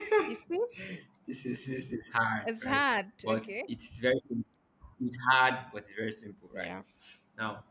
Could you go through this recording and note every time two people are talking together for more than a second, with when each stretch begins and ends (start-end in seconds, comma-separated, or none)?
none